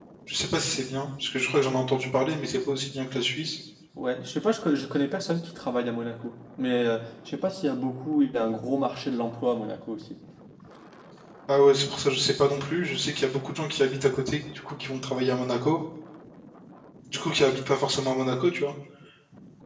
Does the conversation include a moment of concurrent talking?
No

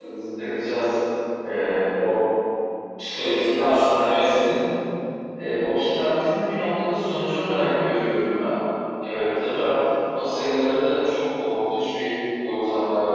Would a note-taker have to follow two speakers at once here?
Yes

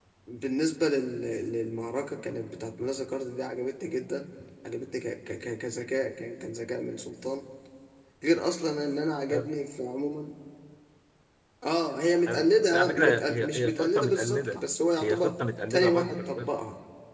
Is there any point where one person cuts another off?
Yes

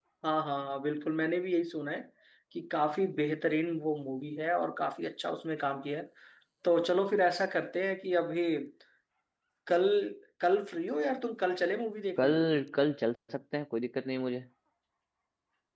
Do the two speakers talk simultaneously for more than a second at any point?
No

